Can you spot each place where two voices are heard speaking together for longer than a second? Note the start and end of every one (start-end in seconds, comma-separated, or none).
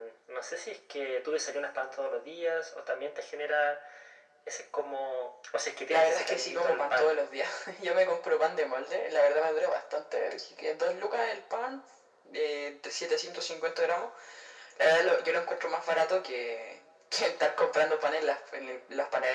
5.9-7.1